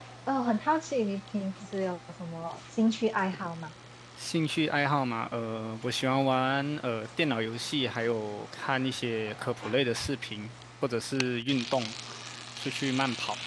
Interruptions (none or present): none